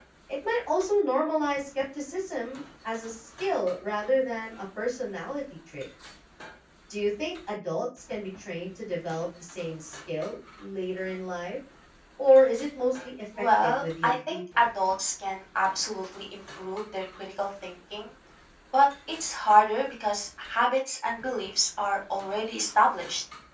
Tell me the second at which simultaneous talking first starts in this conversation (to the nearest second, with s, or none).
13 s